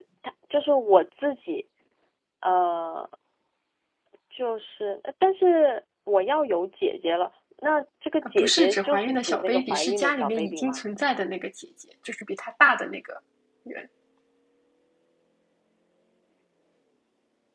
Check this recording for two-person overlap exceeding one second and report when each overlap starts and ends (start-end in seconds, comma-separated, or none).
8.2-10.8